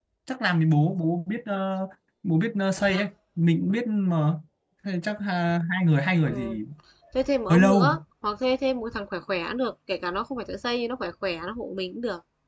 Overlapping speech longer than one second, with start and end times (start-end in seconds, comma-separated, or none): none